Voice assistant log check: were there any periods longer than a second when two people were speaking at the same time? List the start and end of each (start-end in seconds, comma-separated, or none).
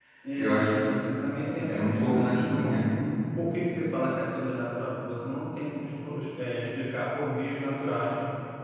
1.6-2.9